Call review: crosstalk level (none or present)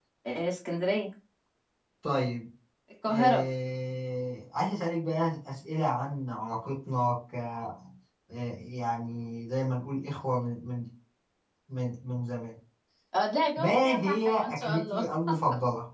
present